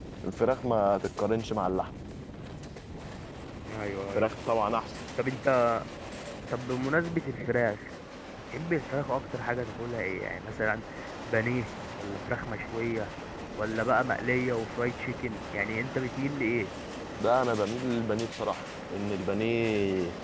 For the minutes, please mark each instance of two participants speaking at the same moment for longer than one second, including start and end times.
none

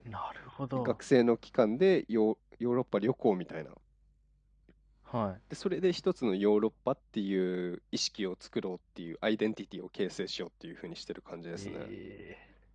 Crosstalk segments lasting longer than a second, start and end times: none

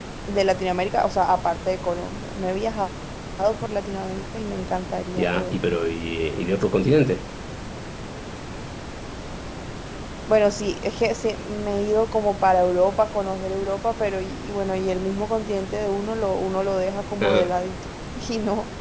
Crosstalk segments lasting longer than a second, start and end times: none

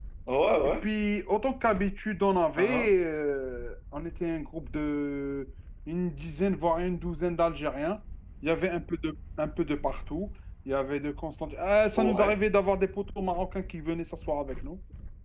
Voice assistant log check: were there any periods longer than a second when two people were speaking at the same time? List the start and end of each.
none

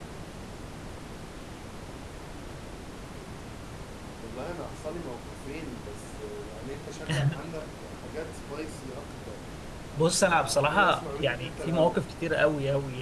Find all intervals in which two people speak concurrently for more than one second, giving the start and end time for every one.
10.3-12.0

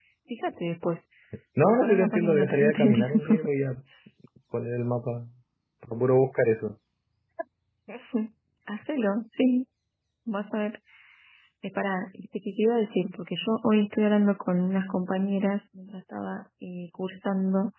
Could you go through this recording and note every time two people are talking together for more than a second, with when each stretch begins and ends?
1.6-3.4

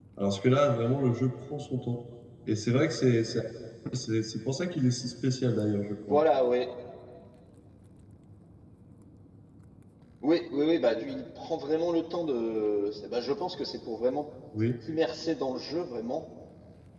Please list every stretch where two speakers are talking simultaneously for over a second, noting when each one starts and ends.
none

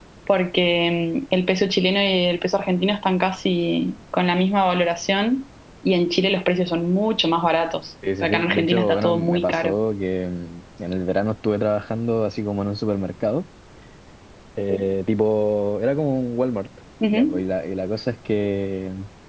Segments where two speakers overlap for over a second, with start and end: 8.2-9.7

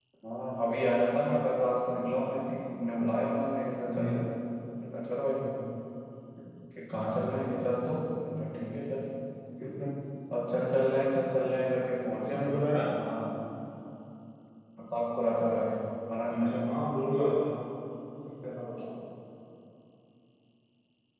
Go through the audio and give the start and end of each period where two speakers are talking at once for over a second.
none

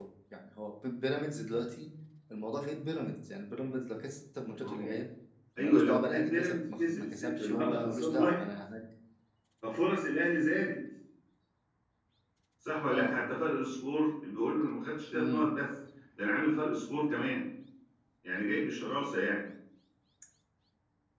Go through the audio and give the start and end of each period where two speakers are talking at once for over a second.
5.6-8.5

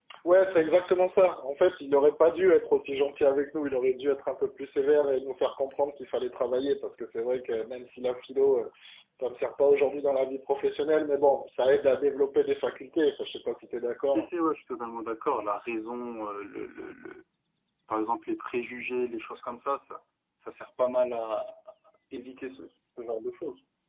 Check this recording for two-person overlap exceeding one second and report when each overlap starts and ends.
none

